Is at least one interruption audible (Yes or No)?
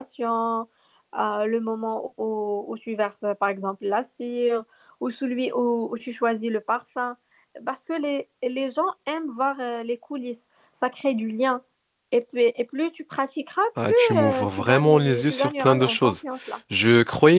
Yes